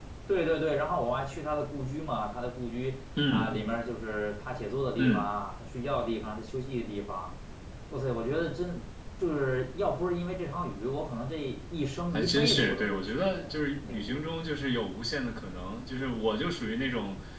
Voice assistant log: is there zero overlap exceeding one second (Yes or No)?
No